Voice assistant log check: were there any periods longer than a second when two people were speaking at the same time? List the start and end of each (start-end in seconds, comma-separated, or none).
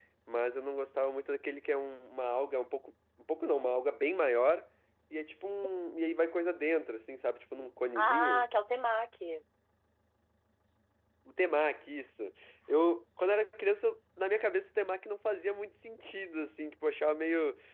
none